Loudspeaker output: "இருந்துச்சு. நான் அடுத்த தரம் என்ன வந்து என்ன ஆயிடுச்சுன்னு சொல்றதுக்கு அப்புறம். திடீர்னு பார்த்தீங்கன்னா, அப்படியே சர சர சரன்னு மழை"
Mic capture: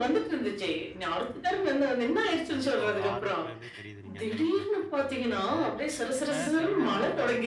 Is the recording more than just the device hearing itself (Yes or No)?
Yes